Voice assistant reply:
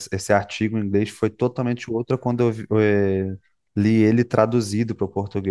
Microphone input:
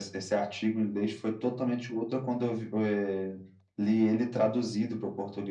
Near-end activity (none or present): none